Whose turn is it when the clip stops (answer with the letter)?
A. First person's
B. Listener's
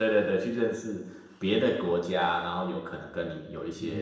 B